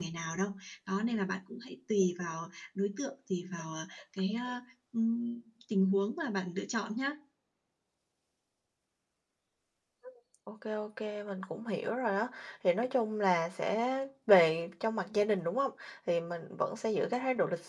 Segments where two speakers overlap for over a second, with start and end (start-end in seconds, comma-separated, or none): none